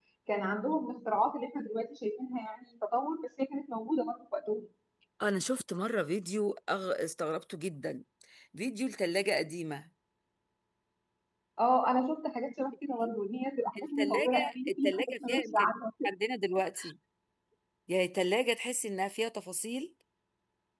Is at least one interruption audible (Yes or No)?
Yes